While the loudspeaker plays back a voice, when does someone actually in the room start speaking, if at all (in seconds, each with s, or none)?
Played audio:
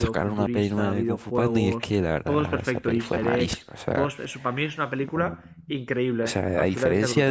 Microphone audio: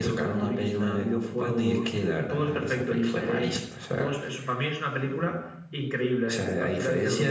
none